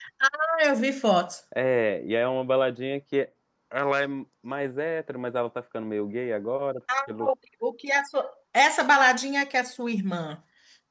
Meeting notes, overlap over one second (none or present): none